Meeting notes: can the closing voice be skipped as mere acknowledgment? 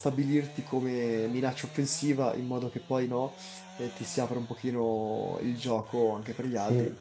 Yes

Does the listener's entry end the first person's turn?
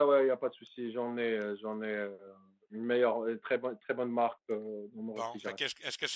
Yes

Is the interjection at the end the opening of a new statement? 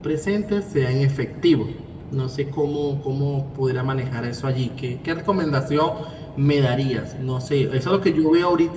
No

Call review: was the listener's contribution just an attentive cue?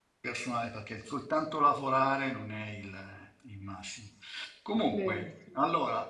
Yes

